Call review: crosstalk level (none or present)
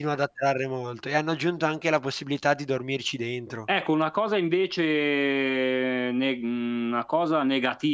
none